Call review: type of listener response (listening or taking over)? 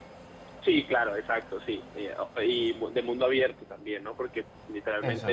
listening